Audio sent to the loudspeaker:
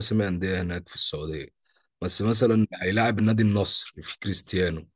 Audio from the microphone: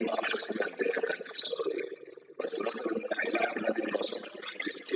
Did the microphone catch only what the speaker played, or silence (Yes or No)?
Yes